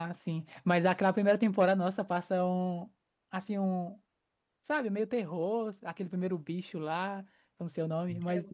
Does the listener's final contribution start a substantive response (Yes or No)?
No